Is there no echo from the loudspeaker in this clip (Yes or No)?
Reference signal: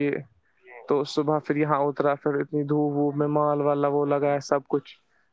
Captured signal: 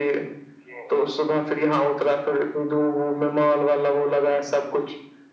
No